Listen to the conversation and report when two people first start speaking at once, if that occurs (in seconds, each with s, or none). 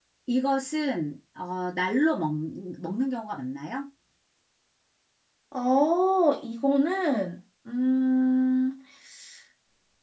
none